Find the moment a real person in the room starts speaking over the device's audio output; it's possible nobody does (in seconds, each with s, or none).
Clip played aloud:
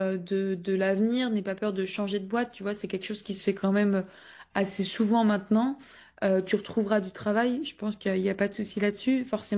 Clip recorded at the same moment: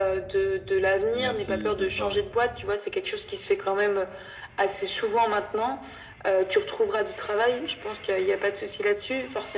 1.1 s